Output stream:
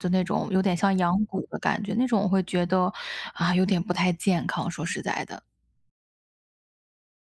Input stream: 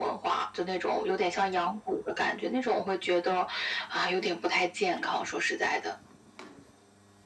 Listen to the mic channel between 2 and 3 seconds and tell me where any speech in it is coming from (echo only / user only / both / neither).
echo only